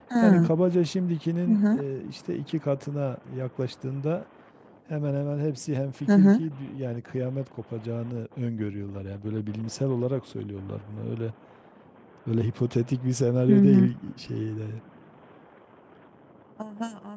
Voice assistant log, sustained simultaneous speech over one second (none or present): none